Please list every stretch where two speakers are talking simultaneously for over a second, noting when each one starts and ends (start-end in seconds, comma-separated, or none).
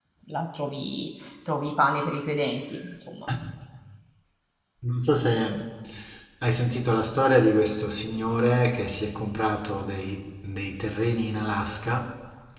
none